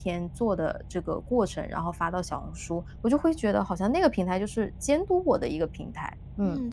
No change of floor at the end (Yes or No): No